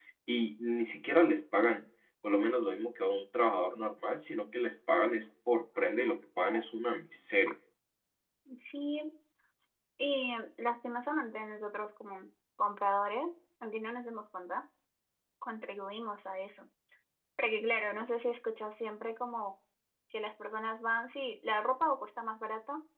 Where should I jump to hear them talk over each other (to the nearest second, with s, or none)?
none